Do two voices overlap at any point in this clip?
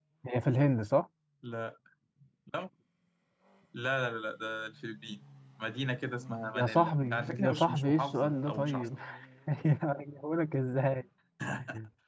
Yes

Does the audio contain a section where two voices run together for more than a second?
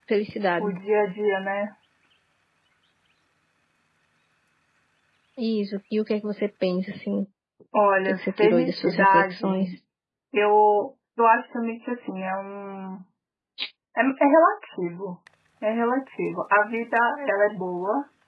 Yes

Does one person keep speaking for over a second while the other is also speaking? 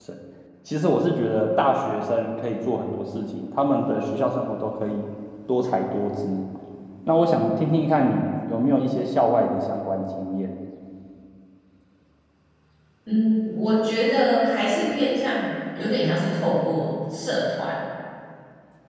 No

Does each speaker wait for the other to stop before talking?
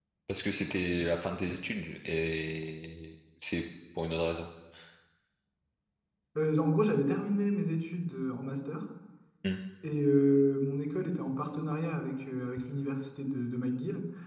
Yes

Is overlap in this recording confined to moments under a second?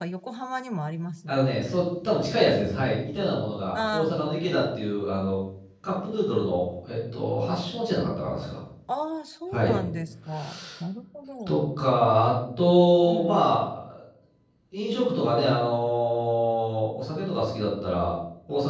Yes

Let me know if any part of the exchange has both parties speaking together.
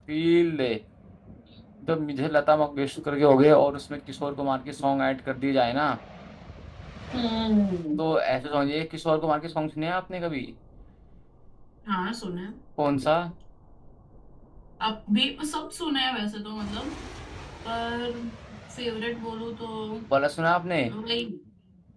No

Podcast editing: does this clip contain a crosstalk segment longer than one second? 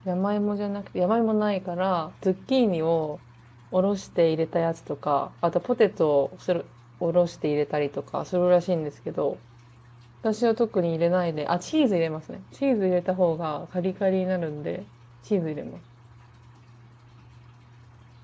No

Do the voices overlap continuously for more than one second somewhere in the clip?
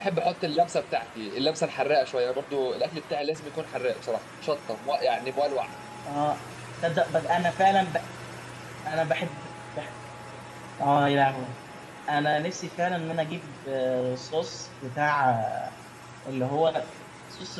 No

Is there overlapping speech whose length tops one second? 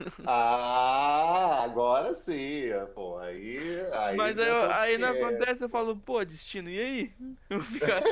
Yes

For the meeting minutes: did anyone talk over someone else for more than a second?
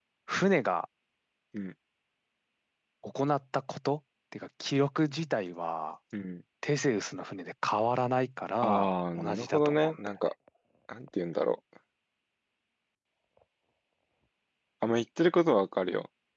Yes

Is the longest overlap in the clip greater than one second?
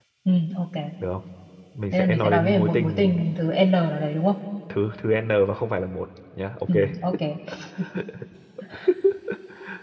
Yes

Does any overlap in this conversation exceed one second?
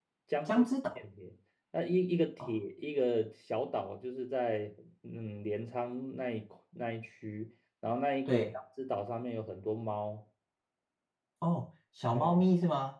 No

